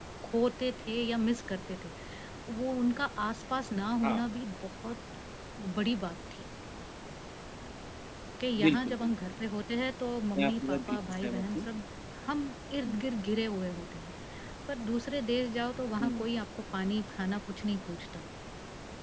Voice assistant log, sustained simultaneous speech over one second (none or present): present